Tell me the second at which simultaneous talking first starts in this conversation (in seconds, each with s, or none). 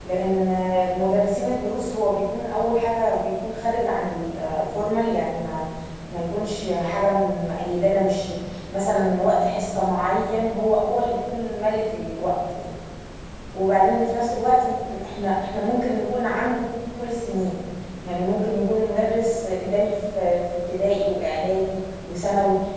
none